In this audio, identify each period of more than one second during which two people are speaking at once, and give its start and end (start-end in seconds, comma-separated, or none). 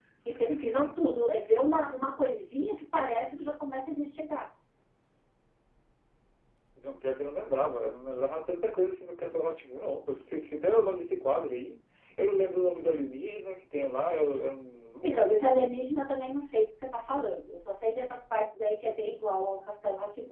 none